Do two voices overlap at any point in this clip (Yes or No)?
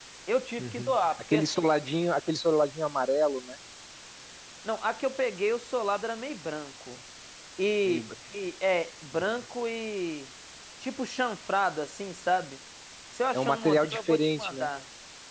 Yes